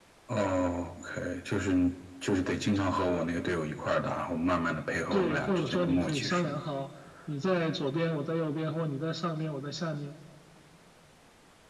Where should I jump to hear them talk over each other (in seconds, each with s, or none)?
5.1 s